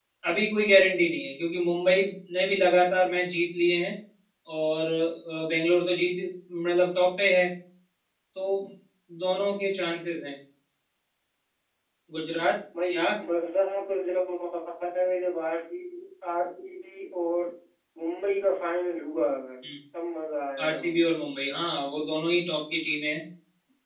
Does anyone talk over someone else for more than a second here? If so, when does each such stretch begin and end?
none

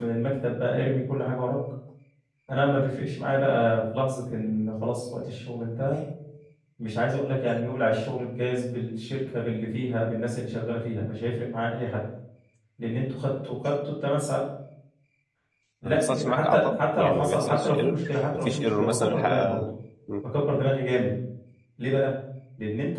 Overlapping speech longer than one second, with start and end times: 15.8-19.6

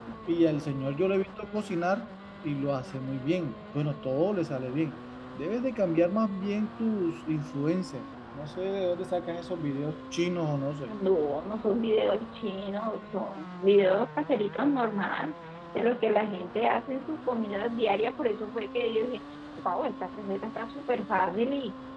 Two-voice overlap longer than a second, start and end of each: none

